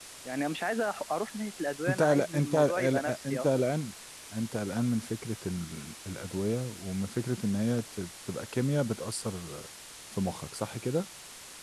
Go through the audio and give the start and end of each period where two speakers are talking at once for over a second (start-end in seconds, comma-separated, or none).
1.9-3.7